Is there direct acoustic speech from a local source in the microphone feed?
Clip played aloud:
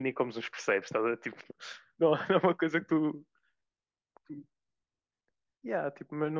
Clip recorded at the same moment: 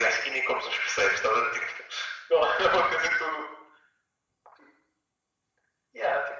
No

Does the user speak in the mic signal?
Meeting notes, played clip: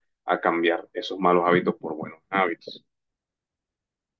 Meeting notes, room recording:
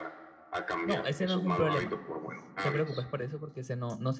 Yes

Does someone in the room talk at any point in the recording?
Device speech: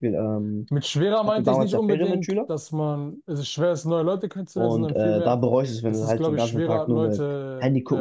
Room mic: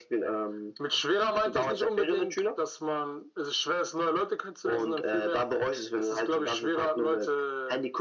No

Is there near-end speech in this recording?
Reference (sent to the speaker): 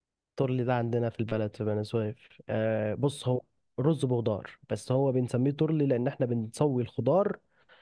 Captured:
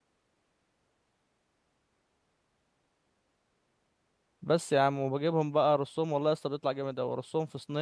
Yes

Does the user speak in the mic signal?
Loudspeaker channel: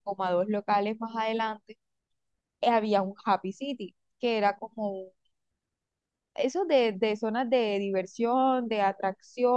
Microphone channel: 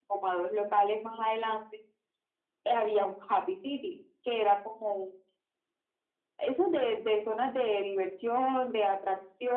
No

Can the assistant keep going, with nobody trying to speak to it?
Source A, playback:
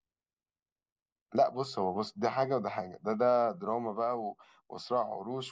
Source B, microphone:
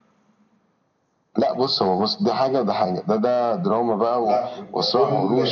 No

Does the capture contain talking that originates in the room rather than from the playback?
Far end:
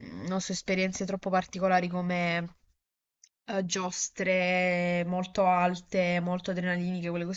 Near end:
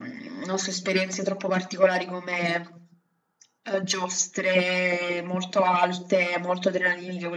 No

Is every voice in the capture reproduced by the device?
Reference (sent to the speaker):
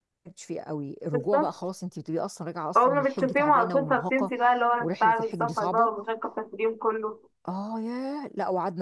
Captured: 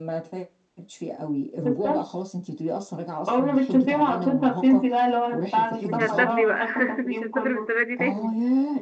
No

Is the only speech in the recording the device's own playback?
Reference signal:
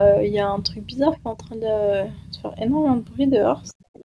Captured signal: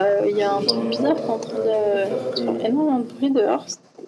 No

